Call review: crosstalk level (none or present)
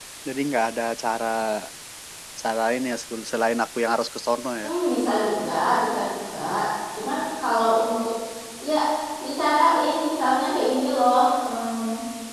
none